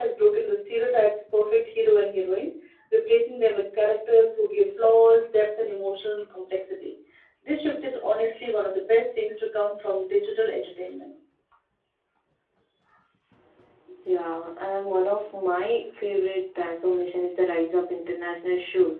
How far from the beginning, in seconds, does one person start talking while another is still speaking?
none

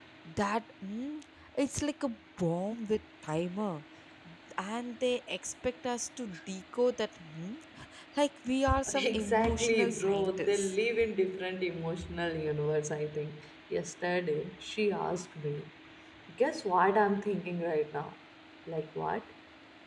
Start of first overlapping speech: 9 s

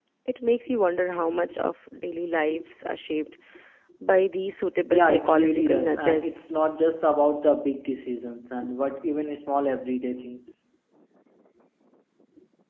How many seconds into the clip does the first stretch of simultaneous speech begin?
5 s

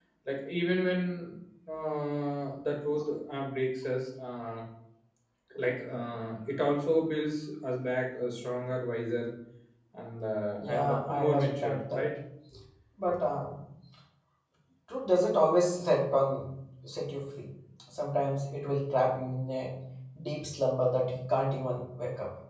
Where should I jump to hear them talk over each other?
11 s

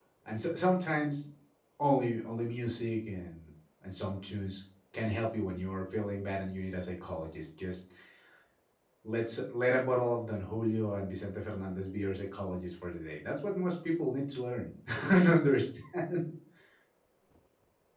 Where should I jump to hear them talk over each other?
none

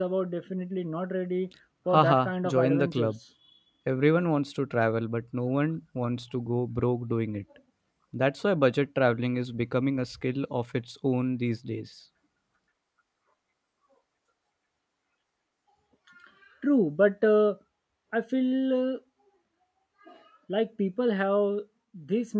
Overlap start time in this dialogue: 2 s

